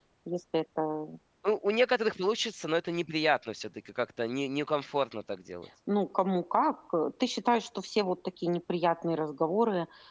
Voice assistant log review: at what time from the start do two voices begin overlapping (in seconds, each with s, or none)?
none